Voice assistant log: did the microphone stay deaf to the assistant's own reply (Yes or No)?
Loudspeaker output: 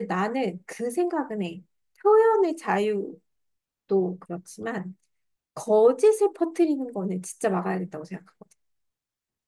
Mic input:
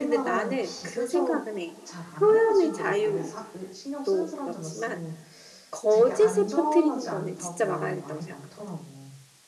No